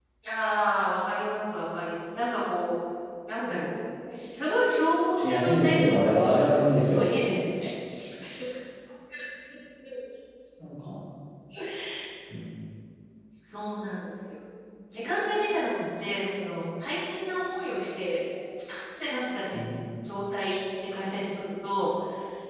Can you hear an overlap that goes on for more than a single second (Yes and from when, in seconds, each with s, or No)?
Yes, from 5.2 s